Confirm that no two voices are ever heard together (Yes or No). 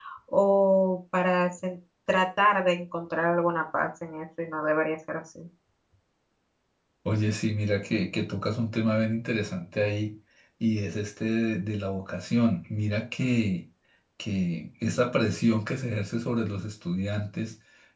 Yes